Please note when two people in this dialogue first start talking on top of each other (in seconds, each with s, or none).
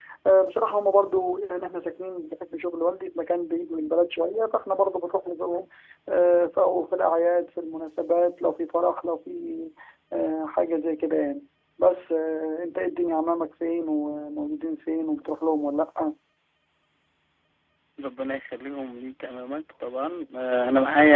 none